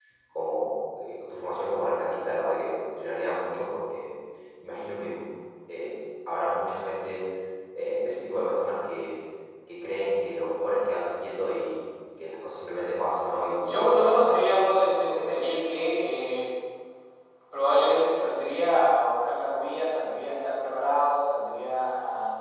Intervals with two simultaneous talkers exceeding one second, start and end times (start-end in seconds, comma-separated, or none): 13.6-15.4